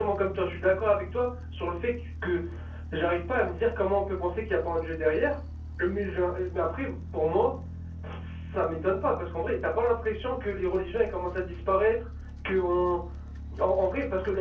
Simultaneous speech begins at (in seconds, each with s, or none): none